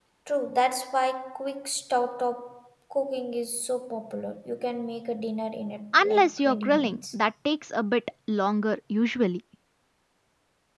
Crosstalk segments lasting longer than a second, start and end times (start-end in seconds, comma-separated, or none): 5.9-7.2